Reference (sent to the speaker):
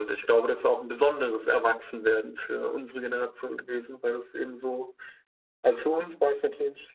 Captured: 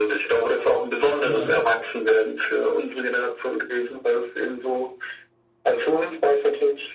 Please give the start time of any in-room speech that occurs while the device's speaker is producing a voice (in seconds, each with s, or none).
1.2 s